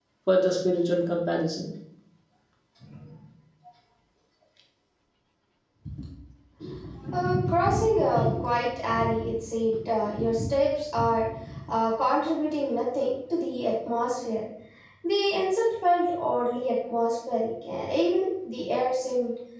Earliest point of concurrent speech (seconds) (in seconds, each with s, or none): none